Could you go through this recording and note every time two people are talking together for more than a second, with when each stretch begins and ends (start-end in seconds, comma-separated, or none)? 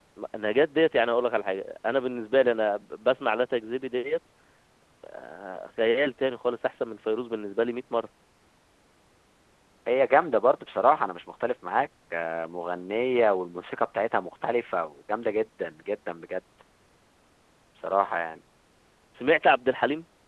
none